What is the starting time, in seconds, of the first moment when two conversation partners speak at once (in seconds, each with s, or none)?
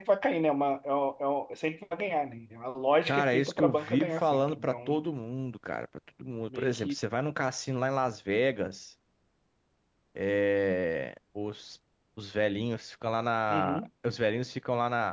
3.1 s